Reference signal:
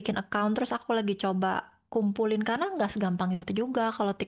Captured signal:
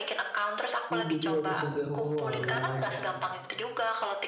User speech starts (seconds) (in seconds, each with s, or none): 0.9 s